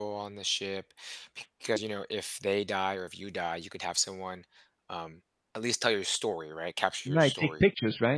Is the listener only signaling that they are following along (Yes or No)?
No